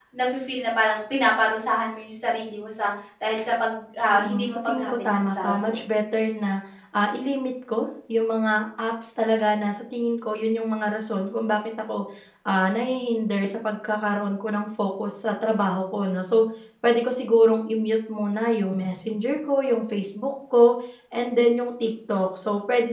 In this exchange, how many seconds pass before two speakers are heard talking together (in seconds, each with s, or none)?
4.1 s